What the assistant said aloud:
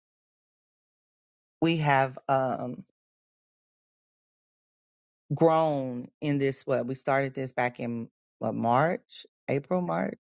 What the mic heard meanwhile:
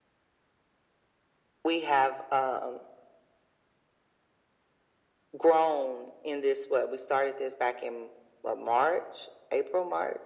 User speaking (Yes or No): No